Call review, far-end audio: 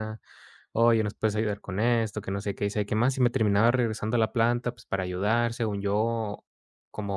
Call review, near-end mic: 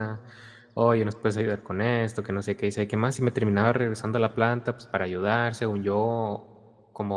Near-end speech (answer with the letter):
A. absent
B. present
A